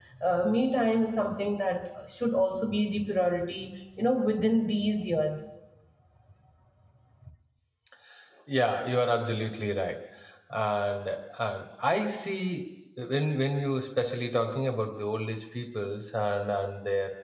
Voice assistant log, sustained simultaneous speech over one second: none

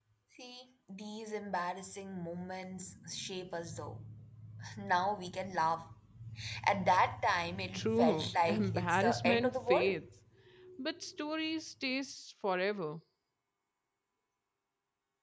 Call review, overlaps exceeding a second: present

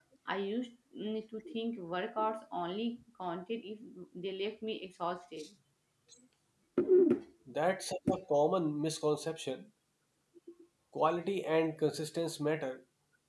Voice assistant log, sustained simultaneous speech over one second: none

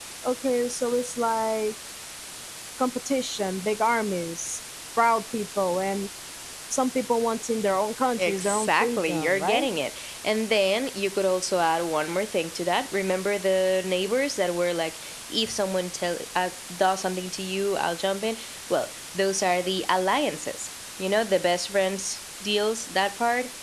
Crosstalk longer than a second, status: present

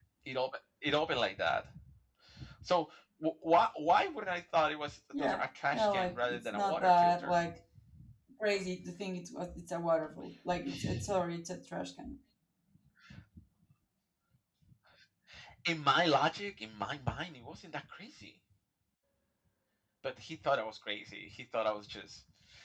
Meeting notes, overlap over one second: present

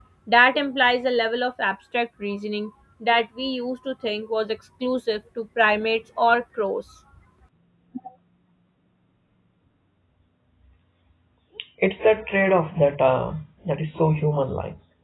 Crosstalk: none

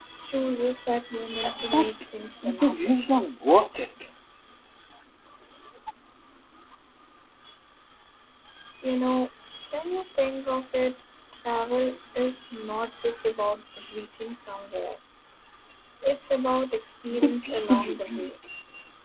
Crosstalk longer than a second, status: present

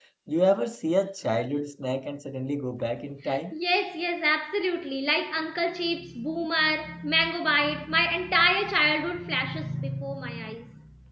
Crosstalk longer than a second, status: none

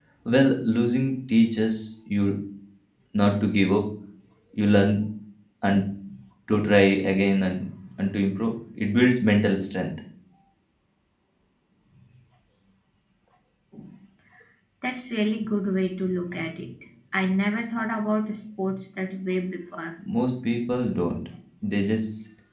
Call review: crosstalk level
none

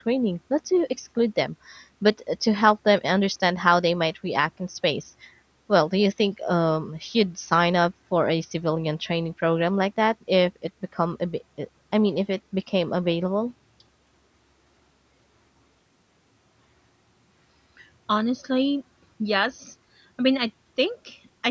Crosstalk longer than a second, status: none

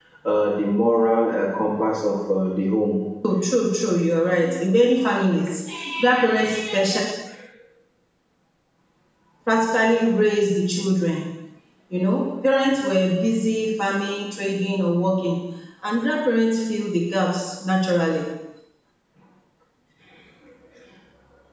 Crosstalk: none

